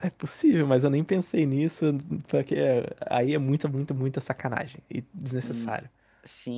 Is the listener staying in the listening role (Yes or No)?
No